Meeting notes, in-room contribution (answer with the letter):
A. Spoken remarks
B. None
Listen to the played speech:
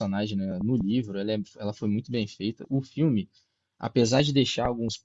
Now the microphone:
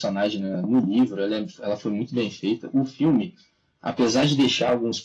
B